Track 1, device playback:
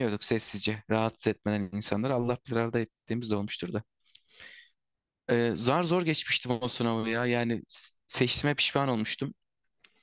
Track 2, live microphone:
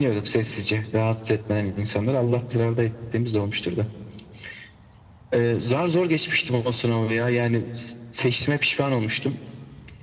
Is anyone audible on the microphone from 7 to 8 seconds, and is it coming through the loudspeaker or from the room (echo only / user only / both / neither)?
echo only